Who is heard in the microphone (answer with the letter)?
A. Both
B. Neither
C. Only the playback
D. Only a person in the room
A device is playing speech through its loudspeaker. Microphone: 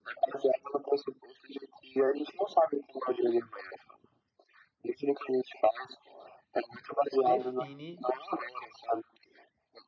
A